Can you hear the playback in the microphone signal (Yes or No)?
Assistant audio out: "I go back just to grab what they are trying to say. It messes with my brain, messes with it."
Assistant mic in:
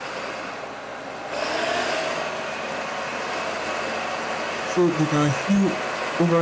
No